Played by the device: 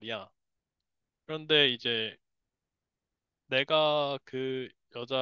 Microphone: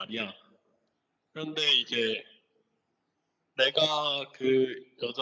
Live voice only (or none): none